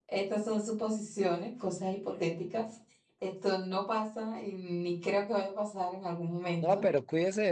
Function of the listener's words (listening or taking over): taking over